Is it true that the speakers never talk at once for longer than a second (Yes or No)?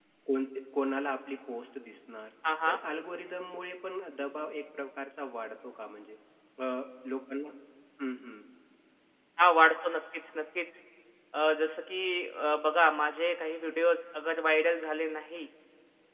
Yes